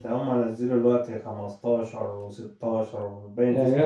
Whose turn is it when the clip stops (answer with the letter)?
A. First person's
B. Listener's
B